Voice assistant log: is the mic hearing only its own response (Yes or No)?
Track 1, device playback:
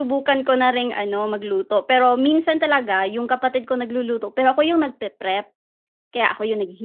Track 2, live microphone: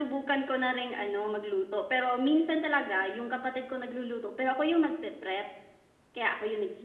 Yes